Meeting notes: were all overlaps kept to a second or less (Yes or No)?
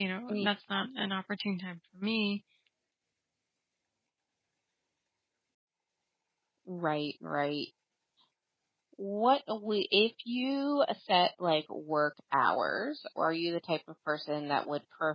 Yes